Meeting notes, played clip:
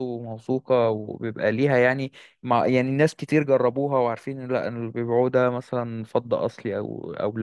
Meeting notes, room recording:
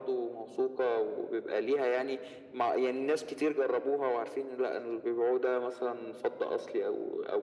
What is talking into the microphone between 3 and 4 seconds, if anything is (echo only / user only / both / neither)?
echo only